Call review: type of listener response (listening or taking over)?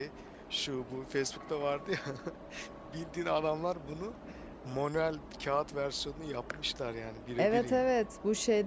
taking over